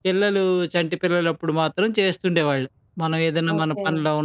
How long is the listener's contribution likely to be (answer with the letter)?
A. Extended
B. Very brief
B